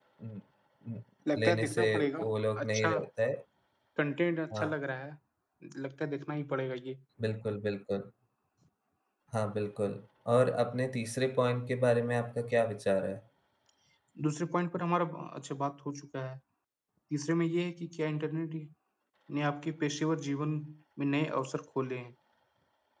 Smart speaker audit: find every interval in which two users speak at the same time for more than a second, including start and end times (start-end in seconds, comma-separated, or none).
1.4-2.9